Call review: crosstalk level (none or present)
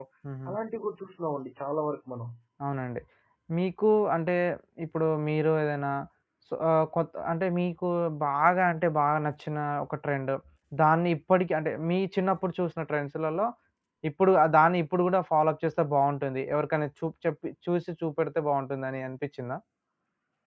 none